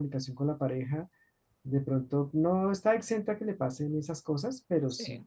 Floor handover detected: No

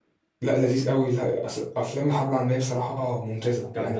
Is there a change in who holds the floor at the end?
No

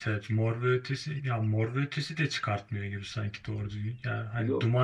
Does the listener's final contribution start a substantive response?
No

